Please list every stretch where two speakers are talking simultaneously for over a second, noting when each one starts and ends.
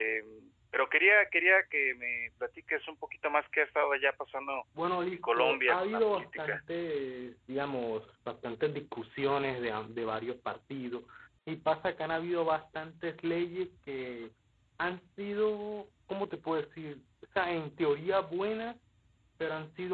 5.1-6.6

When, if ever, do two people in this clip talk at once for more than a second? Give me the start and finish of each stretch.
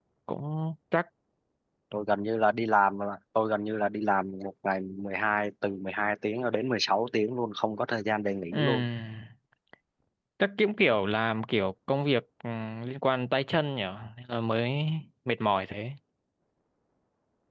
none

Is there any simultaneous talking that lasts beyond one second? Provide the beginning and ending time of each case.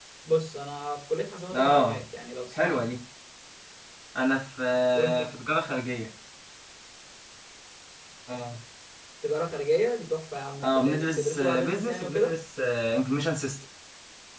10.6-12.3

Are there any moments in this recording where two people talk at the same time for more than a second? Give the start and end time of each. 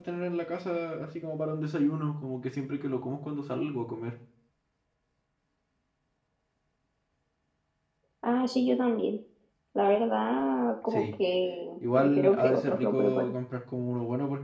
12.0-13.3

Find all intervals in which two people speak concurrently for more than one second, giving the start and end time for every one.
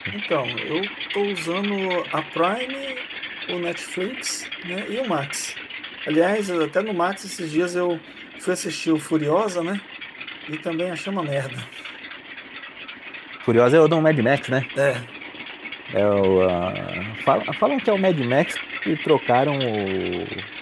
none

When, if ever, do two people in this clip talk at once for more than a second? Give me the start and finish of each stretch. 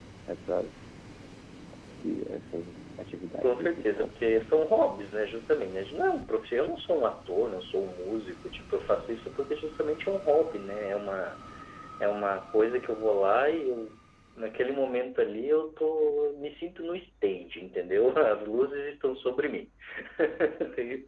3.4-4.9

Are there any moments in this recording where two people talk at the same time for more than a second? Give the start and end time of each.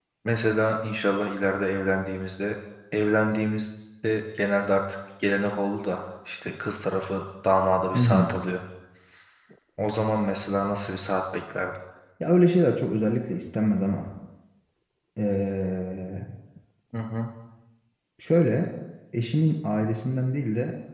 none

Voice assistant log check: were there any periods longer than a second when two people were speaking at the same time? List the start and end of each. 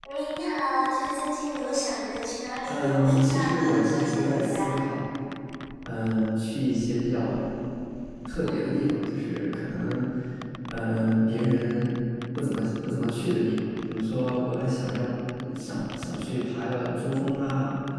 2.7-4.7

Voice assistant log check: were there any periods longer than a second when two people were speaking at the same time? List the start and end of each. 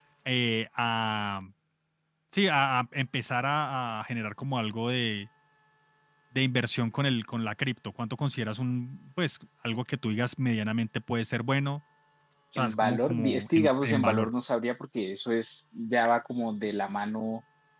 12.6-14.3

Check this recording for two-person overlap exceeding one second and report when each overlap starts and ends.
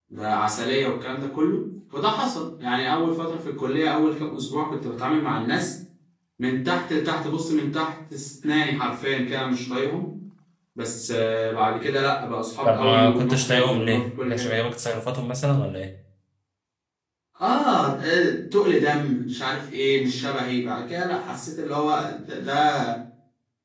12.6-14.5

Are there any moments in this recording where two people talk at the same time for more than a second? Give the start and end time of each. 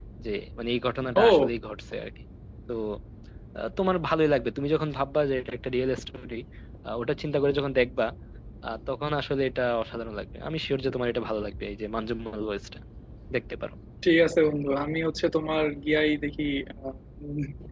none

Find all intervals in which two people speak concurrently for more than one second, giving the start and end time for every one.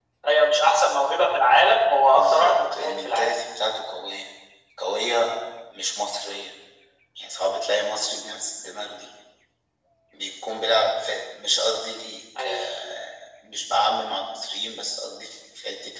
2.1-3.4

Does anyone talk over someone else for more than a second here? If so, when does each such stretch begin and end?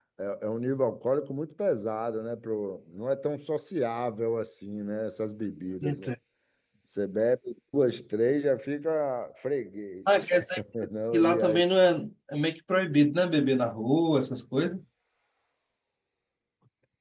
none

